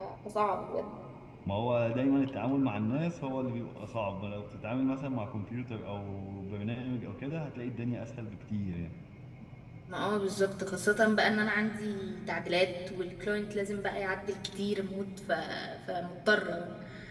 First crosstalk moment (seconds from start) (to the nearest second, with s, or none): none